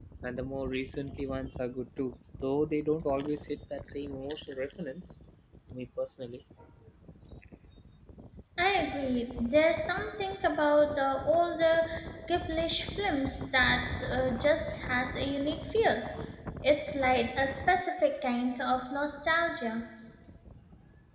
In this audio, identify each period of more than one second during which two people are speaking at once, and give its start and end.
none

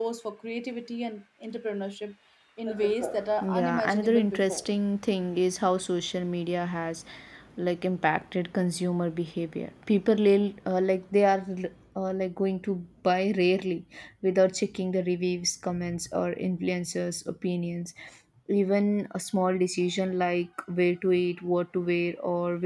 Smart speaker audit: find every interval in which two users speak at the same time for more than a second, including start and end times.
3.4-4.6

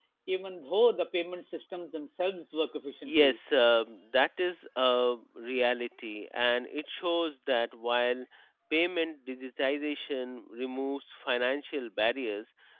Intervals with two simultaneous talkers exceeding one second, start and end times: none

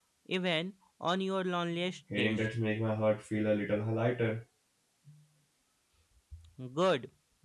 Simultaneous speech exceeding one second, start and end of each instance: none

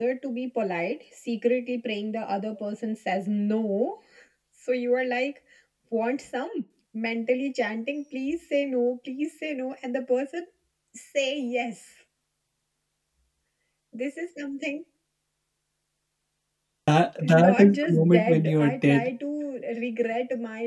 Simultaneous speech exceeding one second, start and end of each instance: 17.2-19.1

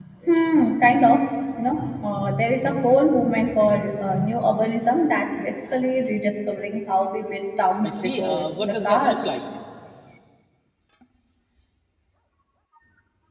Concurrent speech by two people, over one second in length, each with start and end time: 7.8-9.2

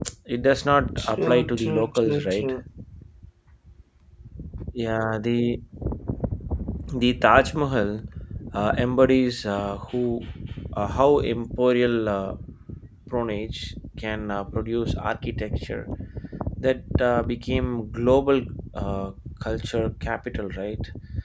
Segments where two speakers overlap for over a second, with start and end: 1.0-2.5

